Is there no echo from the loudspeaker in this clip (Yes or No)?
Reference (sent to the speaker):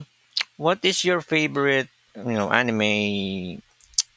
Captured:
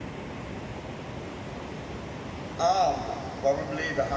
Yes